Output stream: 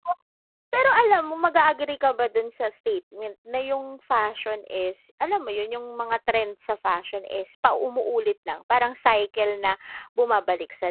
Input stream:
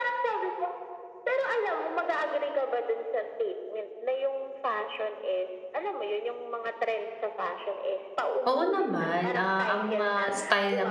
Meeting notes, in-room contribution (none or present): present